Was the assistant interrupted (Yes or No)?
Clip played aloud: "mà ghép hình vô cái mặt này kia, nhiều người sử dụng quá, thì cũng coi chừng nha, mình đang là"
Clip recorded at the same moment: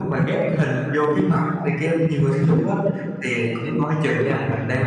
No